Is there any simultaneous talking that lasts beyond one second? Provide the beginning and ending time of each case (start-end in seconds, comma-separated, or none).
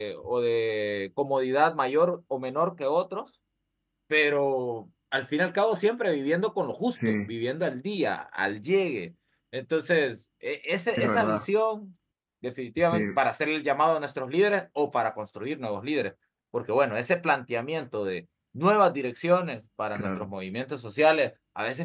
none